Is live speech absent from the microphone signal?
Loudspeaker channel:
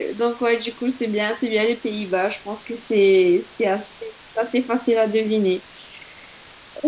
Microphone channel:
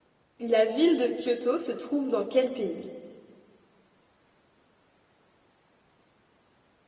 No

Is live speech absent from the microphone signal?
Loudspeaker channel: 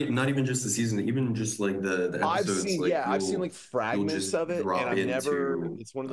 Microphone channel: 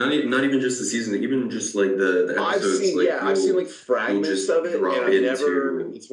Yes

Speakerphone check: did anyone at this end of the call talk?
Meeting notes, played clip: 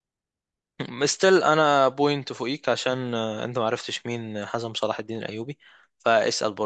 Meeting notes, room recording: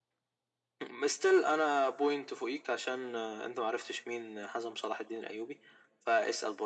No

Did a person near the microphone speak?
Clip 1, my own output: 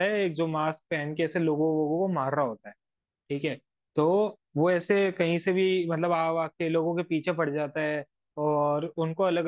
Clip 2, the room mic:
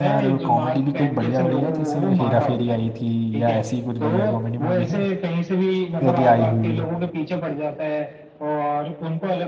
Yes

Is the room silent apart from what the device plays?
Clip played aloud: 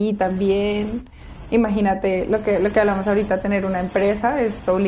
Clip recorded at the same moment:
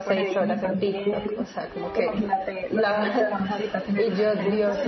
No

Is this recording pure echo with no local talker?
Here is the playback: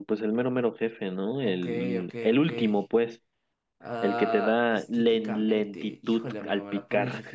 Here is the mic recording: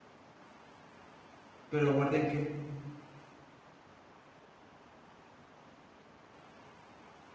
No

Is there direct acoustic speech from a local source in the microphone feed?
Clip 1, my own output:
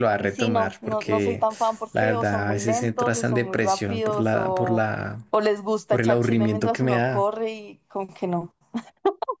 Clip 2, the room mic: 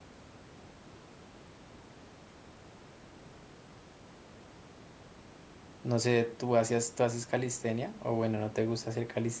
Yes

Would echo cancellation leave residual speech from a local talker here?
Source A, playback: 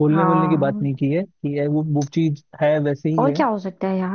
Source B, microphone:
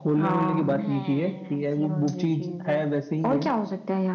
Yes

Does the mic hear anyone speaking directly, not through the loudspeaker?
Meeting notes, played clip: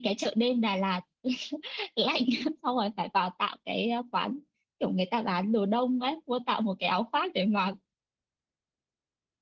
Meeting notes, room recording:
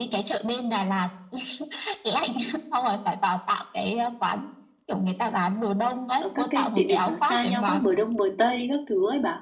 Yes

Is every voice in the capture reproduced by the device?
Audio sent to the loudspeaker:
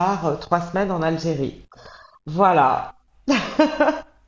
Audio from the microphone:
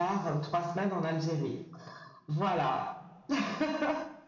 Yes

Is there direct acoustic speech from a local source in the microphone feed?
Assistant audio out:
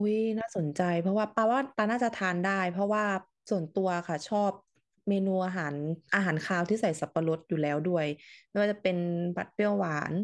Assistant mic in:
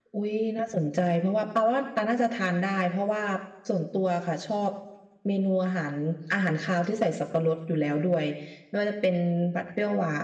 No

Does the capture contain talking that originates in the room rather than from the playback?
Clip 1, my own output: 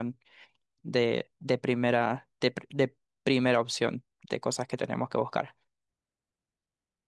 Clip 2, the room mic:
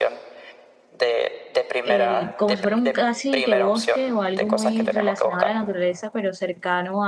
Yes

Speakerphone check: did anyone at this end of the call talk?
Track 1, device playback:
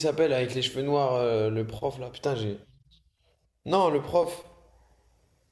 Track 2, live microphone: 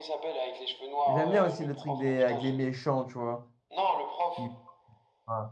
Yes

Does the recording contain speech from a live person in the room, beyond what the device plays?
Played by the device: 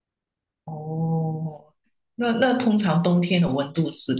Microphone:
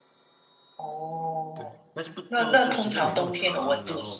Yes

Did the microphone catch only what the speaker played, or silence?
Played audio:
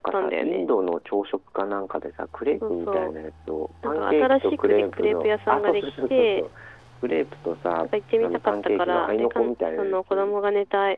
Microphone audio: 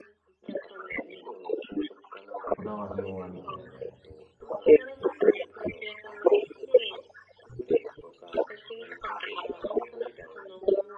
No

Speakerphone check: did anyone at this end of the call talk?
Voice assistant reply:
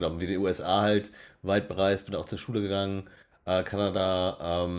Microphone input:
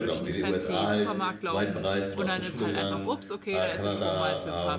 Yes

